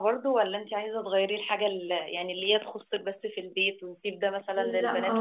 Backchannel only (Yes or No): No